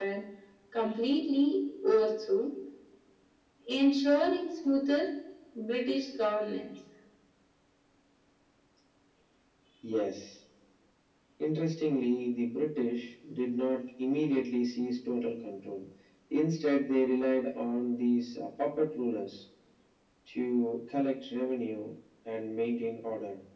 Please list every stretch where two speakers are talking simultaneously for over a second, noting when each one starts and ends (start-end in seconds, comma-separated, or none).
none